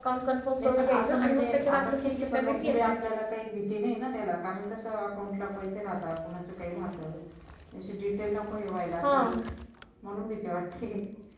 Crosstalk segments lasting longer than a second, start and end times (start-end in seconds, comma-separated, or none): 0.6-2.9